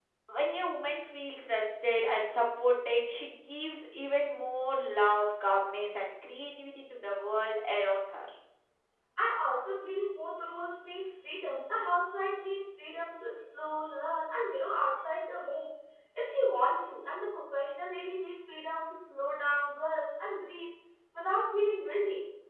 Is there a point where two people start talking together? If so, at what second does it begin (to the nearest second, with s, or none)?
none